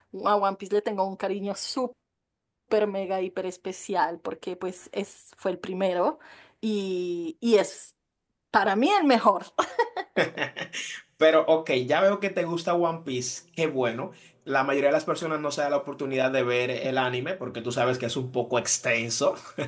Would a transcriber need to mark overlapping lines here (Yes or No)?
No